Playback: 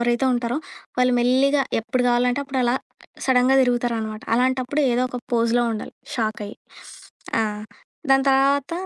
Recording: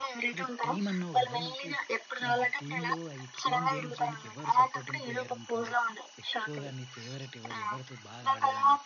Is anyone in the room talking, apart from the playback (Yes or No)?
Yes